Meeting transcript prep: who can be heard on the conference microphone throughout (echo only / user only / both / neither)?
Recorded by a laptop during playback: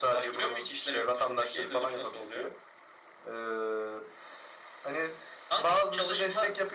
echo only